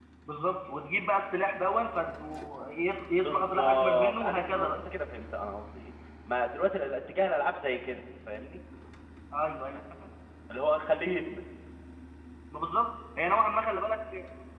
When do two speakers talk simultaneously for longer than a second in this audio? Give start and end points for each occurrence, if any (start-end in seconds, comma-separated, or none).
3.2-4.8